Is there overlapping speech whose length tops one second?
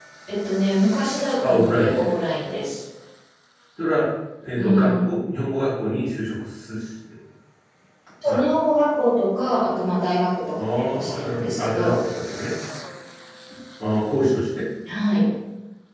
Yes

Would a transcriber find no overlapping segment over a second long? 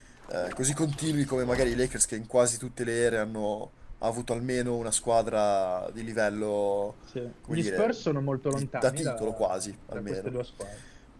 No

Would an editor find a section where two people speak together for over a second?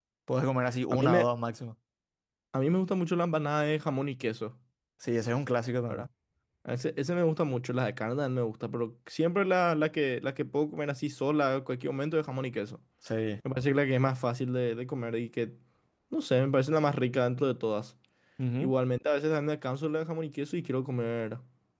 No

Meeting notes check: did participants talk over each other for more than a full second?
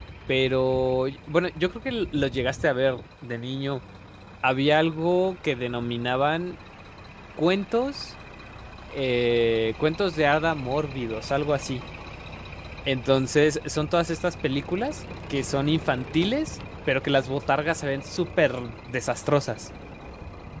No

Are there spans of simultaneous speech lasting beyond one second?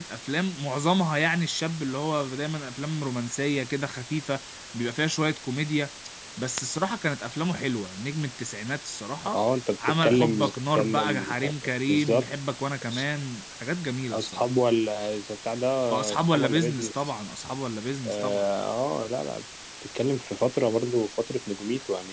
Yes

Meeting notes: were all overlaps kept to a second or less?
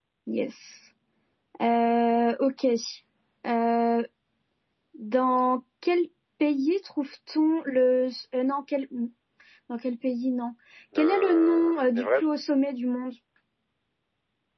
No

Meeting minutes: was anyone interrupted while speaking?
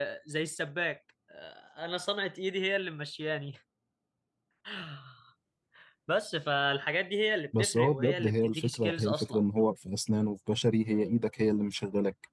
Yes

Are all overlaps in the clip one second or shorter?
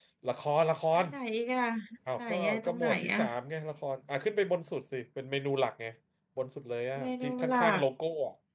No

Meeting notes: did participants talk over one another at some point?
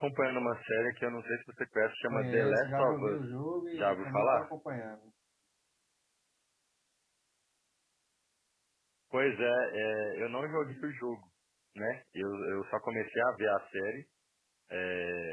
Yes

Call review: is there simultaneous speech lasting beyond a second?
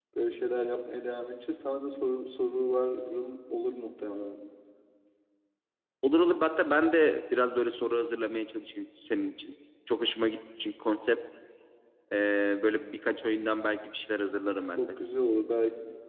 No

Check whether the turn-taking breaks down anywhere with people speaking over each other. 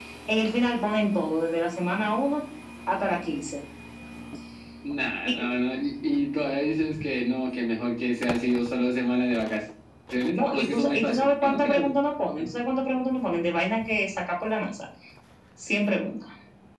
Yes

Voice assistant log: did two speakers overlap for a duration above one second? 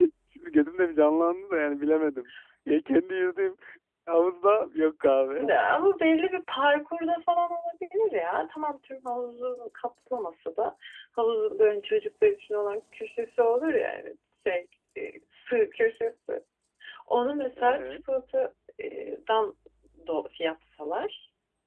No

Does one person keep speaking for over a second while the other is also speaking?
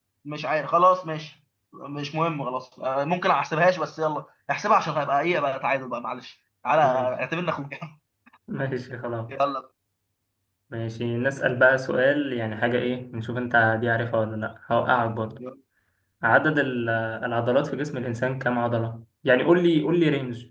No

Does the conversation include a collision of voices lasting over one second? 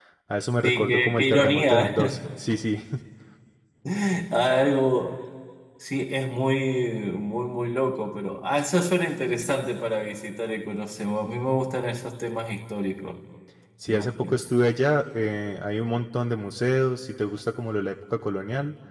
Yes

